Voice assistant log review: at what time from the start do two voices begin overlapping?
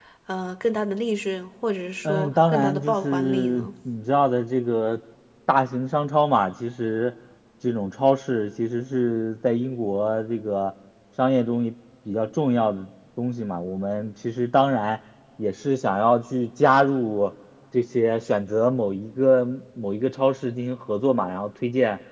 2.0 s

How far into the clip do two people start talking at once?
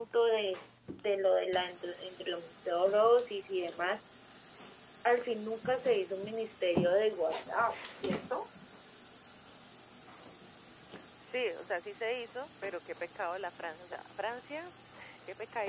none

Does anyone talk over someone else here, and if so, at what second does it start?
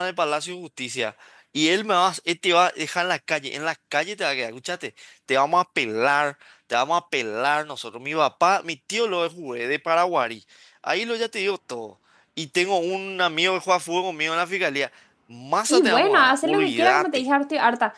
15.7 s

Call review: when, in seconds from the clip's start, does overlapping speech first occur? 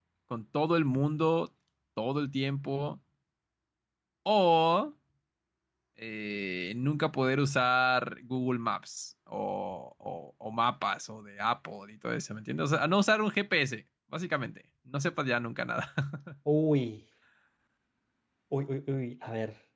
none

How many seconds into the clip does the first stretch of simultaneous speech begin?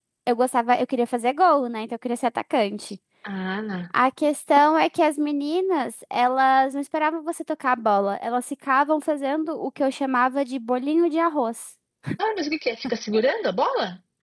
none

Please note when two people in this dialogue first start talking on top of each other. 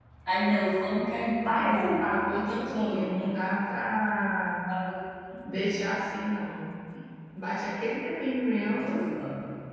1.4 s

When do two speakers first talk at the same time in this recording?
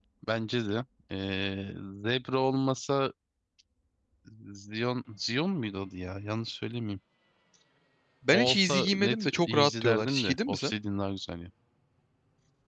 8.3 s

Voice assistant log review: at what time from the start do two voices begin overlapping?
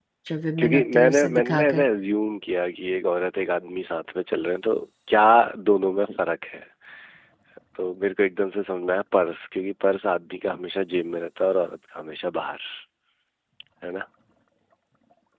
0.6 s

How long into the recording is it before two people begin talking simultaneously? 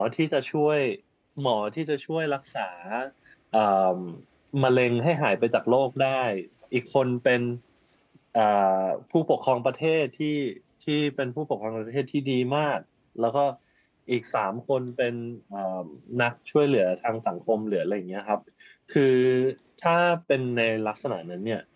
none

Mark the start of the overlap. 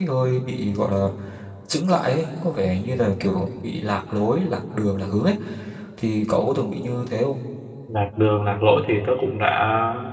none

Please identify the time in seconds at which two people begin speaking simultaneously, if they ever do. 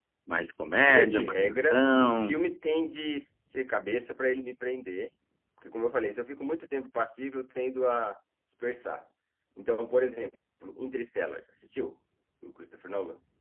0.8 s

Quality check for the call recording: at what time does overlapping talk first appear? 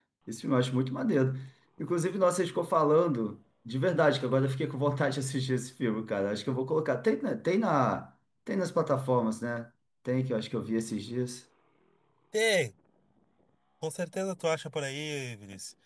none

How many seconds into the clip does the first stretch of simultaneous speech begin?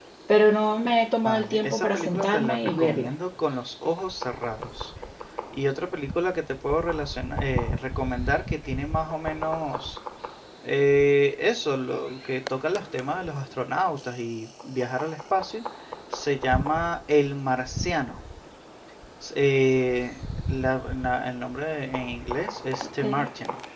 1.2 s

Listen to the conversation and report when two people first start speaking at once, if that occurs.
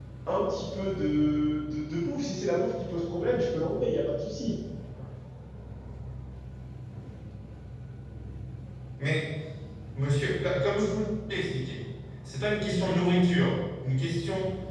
none

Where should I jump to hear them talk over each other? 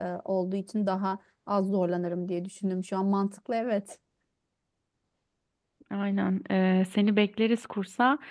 none

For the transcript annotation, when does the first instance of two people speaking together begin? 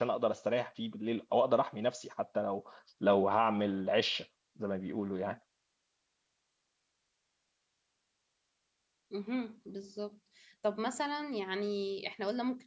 none

